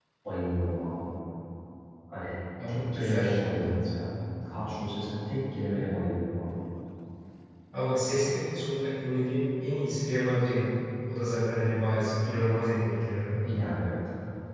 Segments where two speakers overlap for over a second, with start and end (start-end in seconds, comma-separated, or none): 2.7-3.9